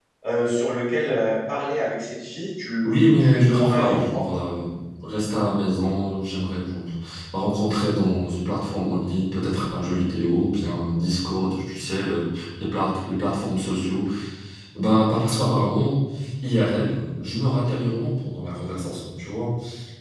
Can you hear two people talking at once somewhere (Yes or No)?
Yes